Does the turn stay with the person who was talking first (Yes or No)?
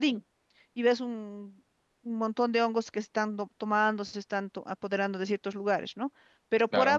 Yes